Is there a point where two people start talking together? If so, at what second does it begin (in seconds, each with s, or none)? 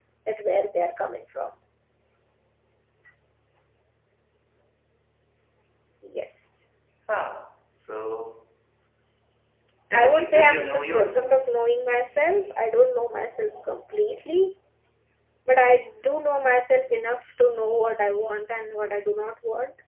9.9 s